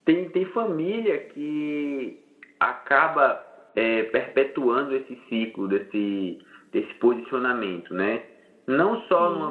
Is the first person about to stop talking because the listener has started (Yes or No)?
No